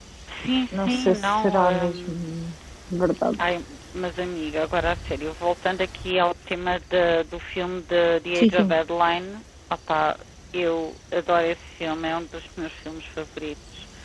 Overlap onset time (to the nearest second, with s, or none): 1 s